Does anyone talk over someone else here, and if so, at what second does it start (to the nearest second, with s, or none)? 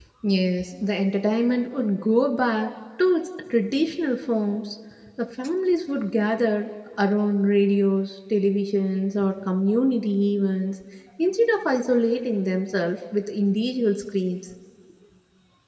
none